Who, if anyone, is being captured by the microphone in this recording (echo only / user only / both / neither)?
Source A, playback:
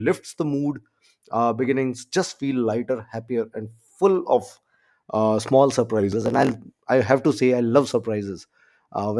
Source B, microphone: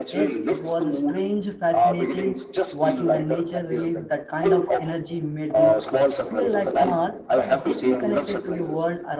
both